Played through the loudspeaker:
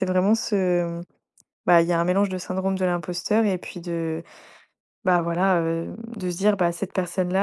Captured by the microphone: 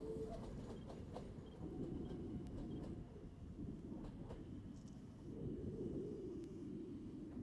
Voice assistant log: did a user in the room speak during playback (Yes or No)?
No